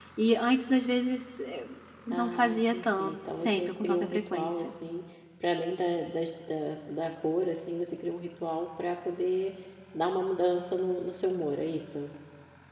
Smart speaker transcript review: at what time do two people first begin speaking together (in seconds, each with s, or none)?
2.2 s